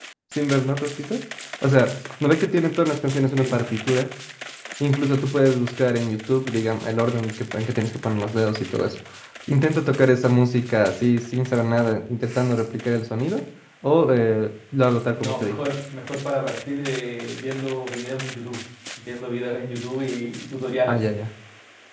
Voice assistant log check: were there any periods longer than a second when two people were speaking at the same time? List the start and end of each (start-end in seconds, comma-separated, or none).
none